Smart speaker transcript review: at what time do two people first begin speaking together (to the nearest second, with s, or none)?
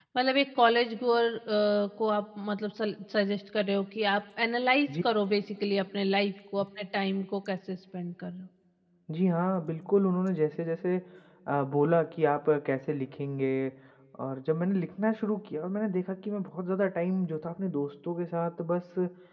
none